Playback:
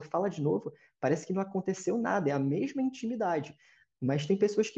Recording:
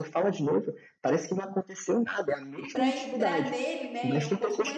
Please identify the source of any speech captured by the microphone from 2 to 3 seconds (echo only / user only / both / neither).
both